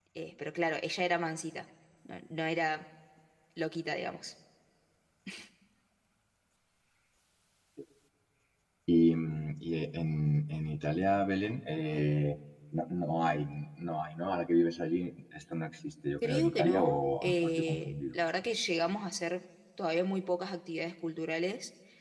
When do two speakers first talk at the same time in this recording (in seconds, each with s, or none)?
16.2 s